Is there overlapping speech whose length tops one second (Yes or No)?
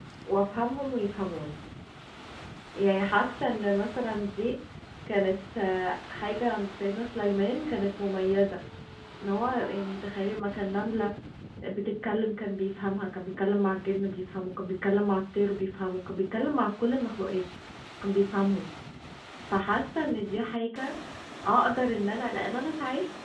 No